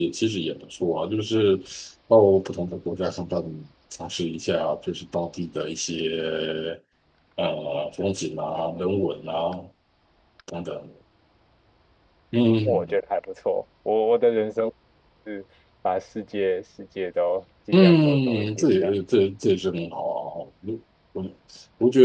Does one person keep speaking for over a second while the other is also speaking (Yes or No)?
Yes